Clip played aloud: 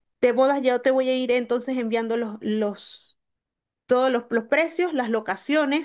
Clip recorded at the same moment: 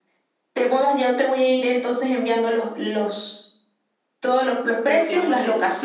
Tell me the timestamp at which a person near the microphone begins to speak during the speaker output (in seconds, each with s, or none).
4.8 s